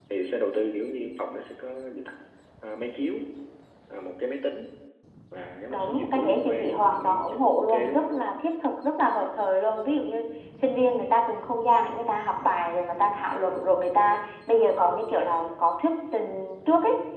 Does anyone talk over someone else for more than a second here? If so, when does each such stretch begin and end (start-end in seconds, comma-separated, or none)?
5.7-8.1